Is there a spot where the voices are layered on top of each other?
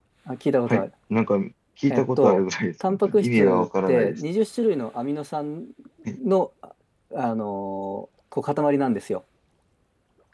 Yes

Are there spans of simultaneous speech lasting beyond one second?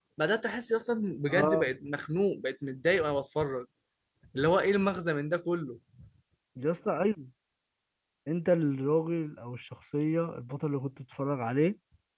No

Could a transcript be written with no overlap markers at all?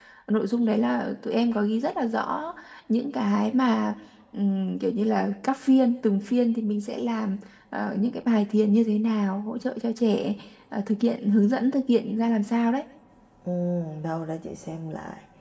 Yes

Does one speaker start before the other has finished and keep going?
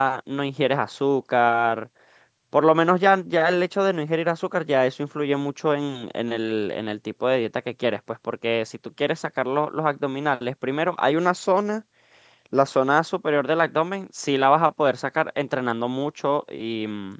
No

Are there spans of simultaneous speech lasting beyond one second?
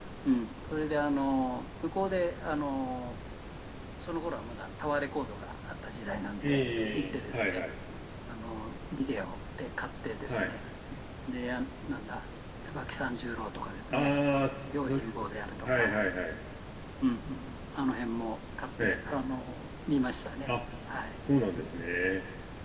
Yes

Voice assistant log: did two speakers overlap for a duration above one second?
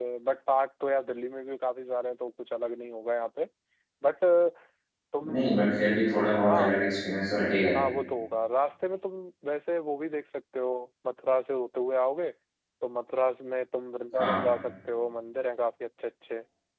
No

